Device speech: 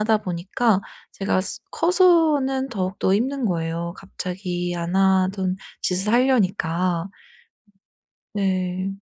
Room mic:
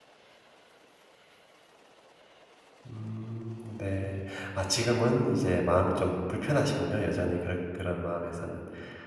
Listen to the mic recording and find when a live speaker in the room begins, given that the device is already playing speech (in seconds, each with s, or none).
2.9 s